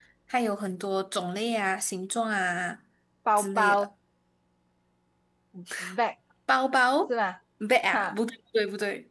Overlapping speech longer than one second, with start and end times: none

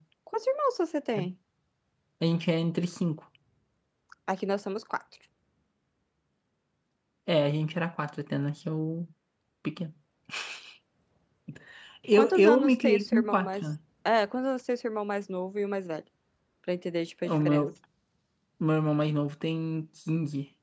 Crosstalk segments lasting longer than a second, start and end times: 12.1-13.6

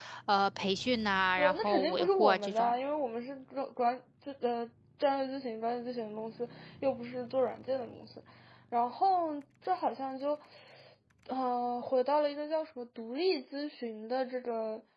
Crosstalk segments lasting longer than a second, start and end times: 1.4-2.8

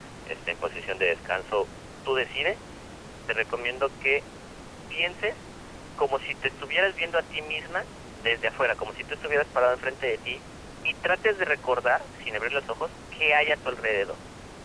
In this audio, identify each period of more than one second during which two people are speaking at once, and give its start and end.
none

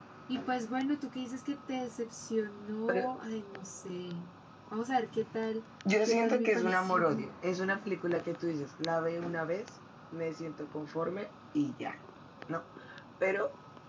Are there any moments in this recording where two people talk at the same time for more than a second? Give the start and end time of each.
6.1-7.3

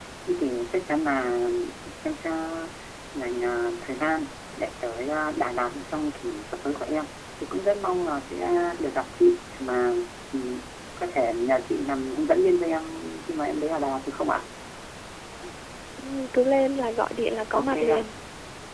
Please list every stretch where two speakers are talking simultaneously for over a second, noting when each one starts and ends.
none

